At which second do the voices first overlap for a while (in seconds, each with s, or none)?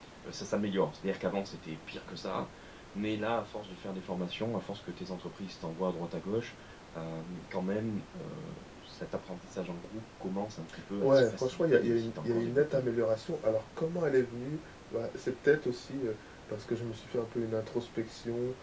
11.0 s